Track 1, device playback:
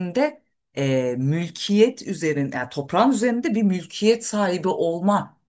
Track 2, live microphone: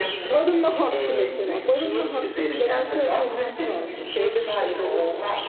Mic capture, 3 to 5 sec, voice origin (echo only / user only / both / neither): both